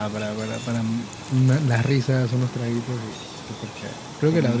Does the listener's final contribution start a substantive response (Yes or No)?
Yes